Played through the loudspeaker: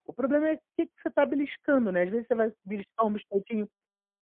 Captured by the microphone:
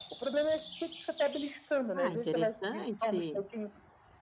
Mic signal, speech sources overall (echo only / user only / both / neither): both